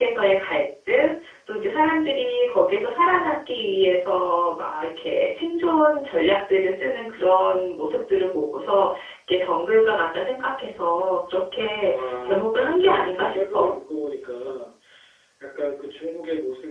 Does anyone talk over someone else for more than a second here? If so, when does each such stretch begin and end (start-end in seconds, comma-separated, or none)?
11.8-13.8